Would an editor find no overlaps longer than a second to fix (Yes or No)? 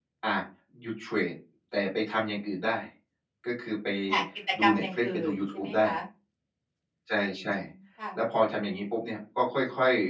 No